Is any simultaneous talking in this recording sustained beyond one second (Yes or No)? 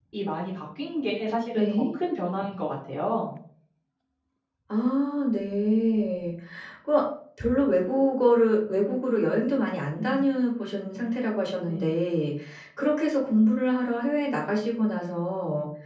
No